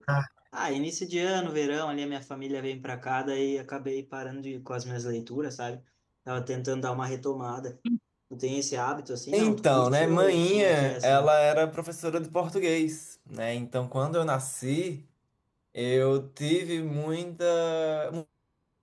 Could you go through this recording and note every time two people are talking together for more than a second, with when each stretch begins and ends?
9.3-11.3

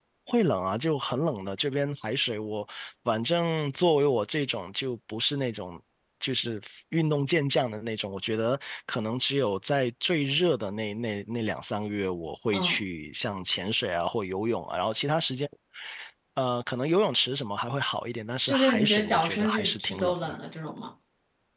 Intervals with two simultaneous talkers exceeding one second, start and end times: 18.5-20.4

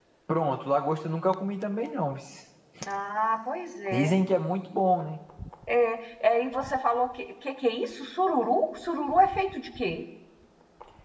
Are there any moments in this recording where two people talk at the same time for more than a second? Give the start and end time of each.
none

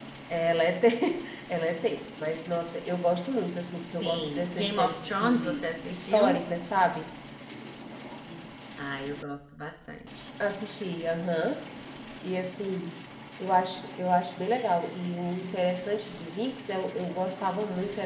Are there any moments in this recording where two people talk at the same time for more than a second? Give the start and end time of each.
4.0-6.4

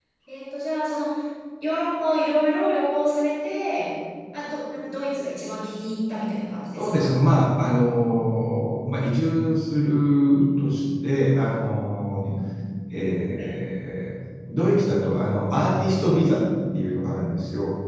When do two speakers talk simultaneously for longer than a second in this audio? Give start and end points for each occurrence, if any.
none

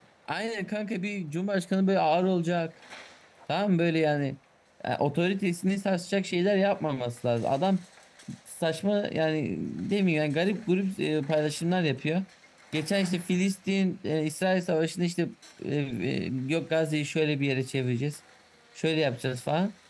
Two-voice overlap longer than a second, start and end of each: none

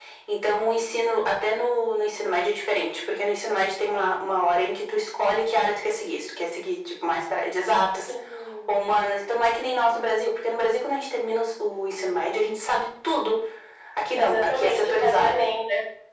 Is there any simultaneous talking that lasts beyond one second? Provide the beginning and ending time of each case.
14.2-15.4

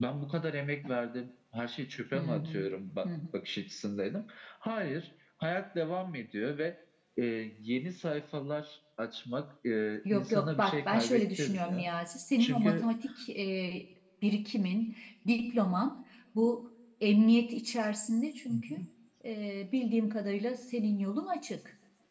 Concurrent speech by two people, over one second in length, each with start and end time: 10.1-11.9

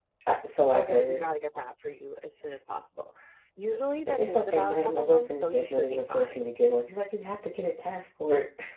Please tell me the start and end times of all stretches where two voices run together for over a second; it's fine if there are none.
4.1-6.5

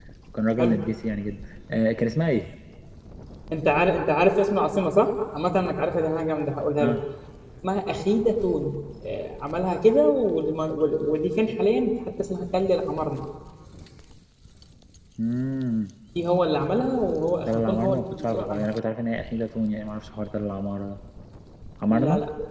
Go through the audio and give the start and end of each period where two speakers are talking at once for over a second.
17.5-18.7

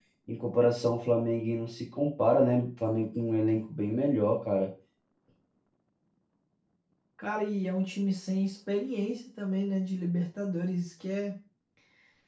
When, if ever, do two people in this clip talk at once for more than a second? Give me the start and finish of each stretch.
none

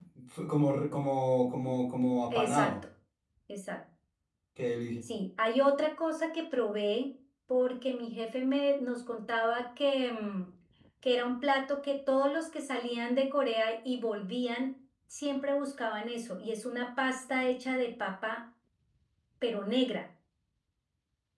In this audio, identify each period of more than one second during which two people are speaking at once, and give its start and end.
none

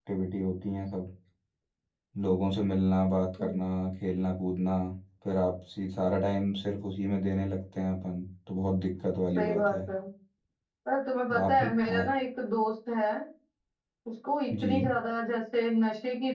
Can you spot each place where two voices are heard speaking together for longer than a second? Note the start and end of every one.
none

